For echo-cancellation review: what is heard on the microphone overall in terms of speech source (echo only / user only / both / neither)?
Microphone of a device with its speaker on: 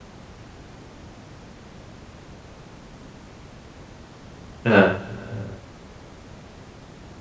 user only